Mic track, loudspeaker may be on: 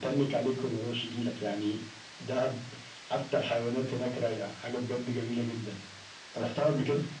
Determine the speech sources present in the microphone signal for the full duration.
echo only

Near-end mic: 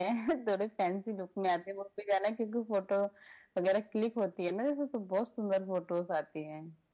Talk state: echo only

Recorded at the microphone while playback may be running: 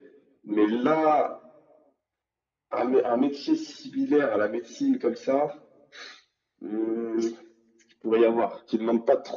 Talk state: echo only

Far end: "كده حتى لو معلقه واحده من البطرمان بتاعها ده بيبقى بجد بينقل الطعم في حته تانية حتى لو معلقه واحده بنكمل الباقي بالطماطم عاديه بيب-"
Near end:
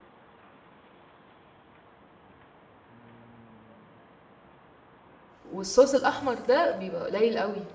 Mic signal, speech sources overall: user only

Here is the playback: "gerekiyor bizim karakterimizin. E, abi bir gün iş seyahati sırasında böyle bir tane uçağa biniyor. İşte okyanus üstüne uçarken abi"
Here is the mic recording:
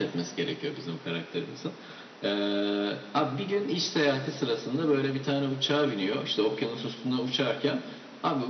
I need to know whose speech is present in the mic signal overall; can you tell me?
echo only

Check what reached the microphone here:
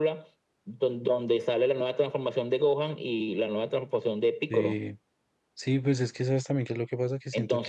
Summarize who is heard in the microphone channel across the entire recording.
both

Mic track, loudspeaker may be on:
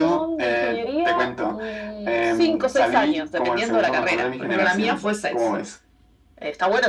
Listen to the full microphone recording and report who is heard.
echo only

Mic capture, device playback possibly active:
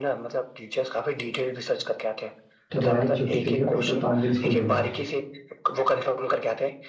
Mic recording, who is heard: both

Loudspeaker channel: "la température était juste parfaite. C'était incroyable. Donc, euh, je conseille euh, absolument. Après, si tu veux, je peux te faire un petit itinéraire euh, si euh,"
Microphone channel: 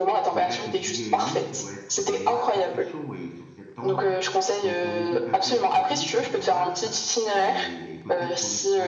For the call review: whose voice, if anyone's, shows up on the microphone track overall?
both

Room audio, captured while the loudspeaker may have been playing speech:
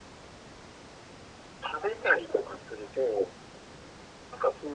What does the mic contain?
echo only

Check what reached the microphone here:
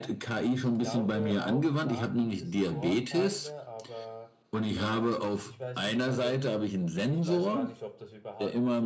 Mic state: both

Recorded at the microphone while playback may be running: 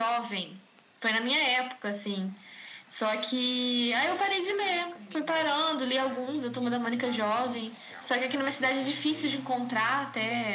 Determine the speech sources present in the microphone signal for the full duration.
both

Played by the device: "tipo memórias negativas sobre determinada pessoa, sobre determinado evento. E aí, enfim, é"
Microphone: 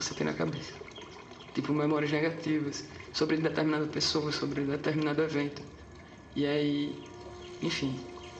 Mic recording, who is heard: echo only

